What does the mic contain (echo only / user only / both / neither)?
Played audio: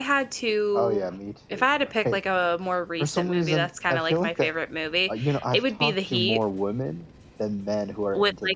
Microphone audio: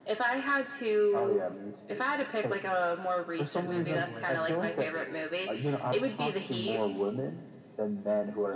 both